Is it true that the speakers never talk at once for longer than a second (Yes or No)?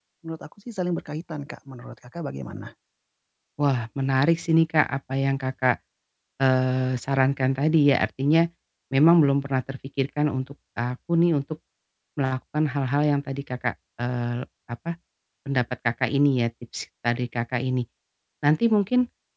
Yes